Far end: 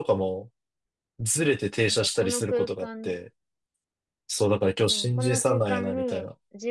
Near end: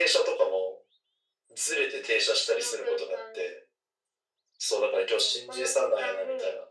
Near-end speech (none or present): none